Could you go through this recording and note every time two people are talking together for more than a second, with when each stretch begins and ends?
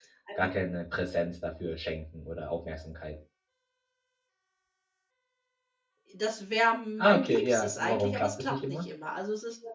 7.0-8.8

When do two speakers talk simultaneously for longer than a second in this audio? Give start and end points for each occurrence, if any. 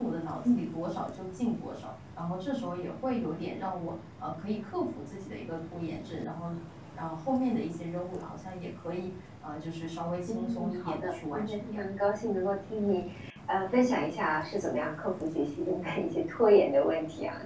10.3-11.8

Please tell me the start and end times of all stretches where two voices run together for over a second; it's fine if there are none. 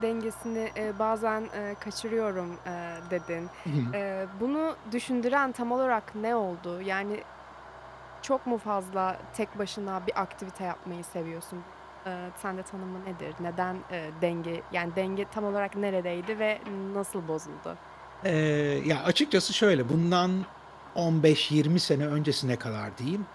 none

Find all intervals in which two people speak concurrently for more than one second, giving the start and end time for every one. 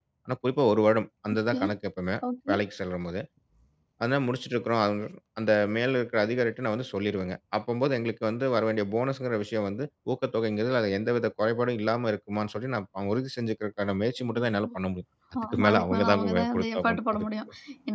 15.5-17.3

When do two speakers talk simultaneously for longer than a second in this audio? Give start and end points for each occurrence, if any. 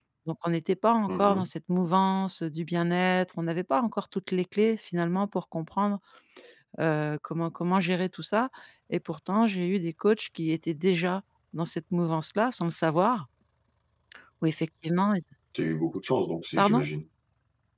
none

